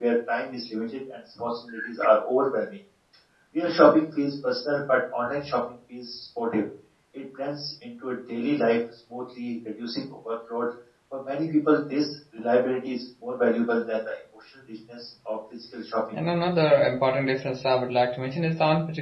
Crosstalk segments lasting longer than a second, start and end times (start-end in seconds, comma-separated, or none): none